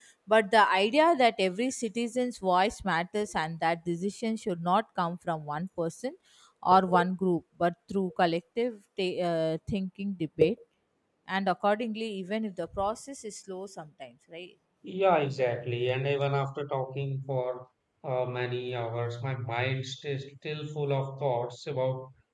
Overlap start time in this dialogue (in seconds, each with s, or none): none